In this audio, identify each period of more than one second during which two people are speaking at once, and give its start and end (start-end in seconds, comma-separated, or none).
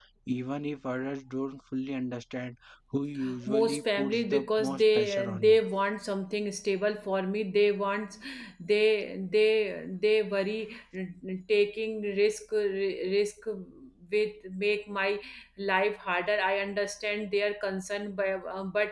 3.5-5.6